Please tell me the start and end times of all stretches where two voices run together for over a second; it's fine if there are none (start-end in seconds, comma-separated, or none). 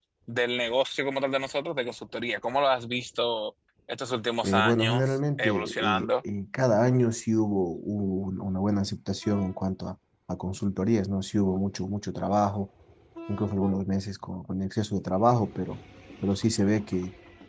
4.4-6.1